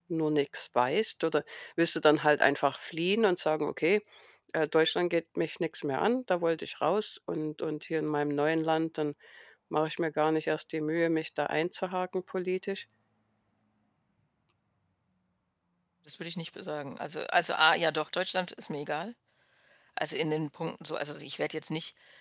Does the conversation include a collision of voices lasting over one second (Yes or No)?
No